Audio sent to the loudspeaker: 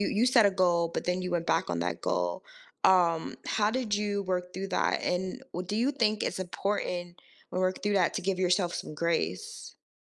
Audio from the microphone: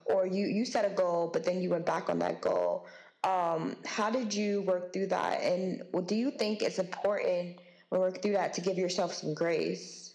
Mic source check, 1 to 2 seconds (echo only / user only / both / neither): echo only